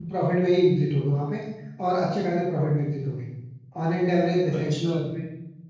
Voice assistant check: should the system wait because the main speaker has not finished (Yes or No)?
Yes